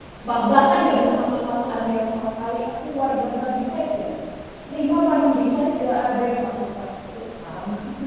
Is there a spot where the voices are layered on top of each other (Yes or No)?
No